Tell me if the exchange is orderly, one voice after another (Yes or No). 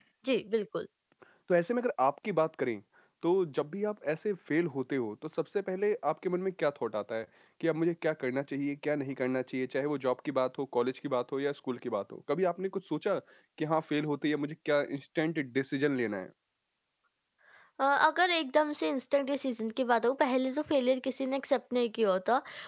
Yes